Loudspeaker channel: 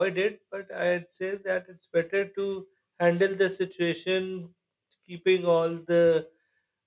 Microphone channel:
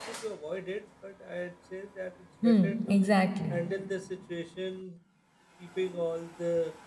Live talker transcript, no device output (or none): hmm, exactly